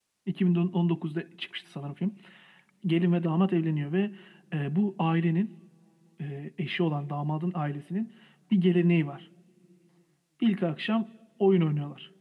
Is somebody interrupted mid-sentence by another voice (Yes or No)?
No